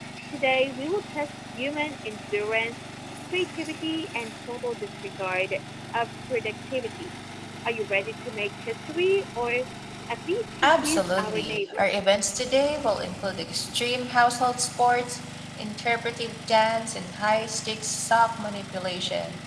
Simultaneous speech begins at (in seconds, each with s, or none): 10.6 s